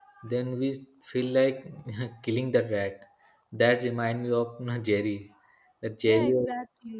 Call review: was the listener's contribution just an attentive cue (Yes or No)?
No